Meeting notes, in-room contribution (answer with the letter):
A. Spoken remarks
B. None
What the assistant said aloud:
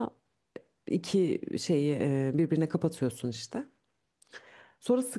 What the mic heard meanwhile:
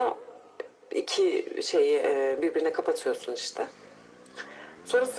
B